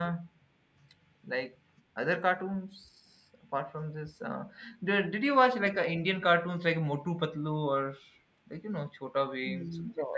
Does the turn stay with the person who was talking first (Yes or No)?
No